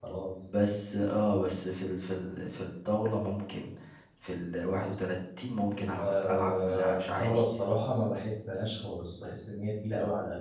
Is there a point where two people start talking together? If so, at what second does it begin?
6 s

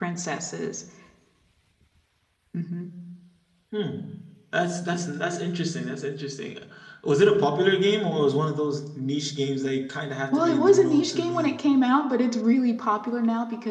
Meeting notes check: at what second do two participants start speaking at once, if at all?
10 s

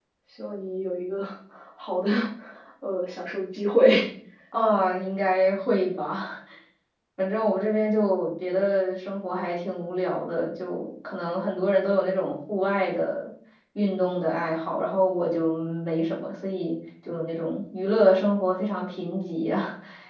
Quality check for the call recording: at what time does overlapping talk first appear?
none

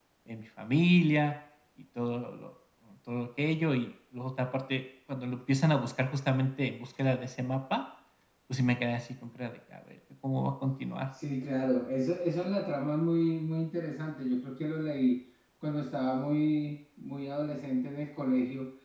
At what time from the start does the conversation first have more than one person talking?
none

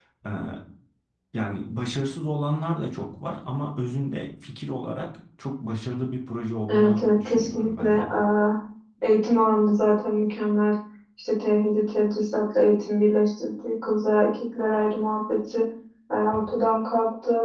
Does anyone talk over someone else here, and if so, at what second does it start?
7 s

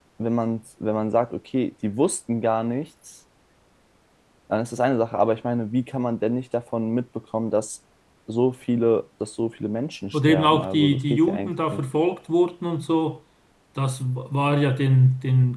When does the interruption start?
10 s

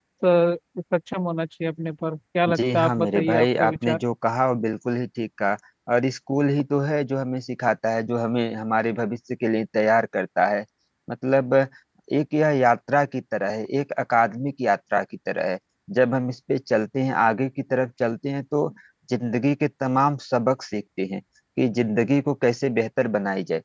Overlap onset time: 2 s

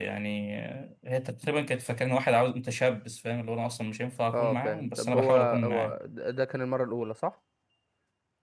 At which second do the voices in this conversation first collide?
4 s

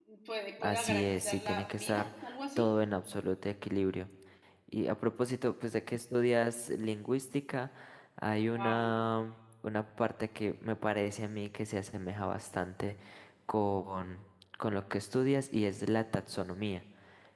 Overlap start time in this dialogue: 1 s

